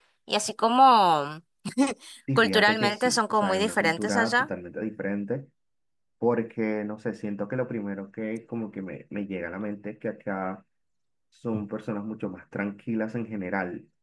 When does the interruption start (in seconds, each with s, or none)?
2.4 s